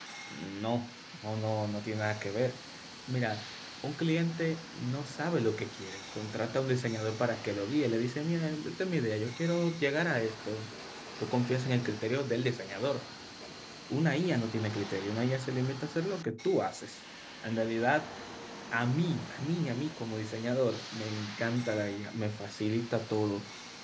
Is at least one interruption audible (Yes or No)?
No